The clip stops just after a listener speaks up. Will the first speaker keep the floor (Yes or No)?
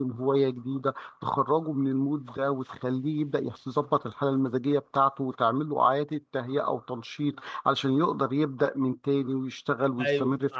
No